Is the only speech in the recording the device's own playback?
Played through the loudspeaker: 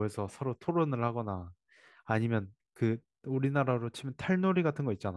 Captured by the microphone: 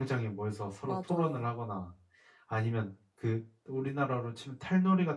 No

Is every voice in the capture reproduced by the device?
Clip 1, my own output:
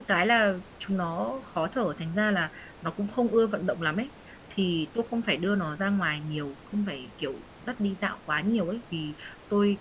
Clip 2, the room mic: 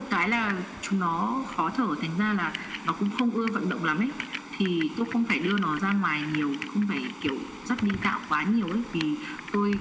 Yes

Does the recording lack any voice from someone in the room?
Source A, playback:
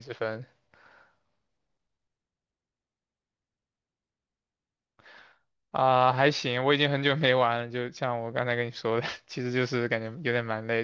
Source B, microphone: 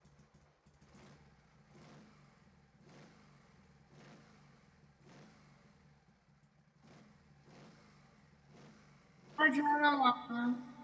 No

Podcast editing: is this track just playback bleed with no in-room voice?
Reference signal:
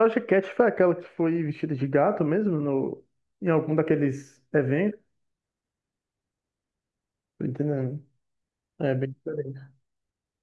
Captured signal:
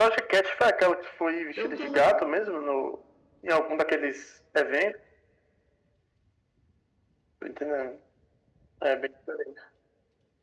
No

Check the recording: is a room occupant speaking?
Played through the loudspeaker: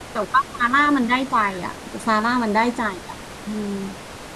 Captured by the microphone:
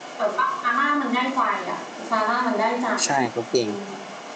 Yes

